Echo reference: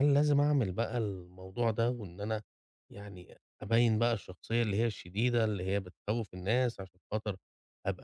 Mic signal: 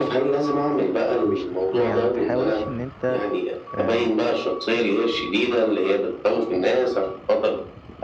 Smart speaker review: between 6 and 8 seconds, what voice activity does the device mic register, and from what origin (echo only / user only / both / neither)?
echo only